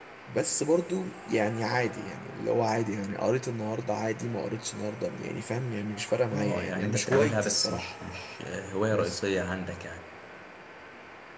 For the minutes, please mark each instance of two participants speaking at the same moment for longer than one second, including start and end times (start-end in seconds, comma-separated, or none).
6.3-7.9